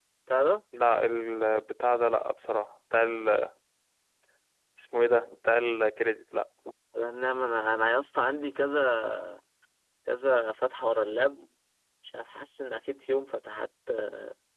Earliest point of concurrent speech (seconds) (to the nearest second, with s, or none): none